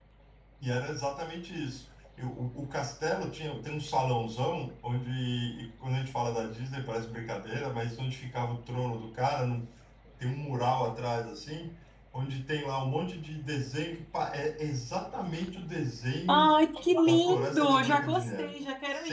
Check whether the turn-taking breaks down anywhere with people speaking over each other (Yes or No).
Yes